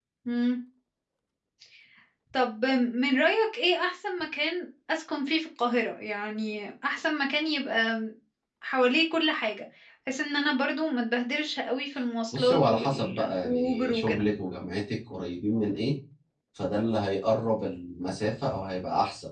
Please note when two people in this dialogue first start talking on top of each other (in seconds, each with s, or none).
12.3 s